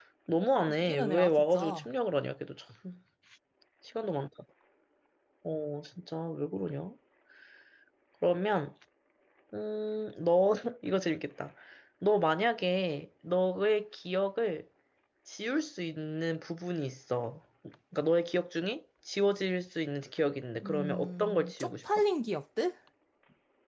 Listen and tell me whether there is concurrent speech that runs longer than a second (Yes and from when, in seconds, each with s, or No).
Yes, from 0.6 s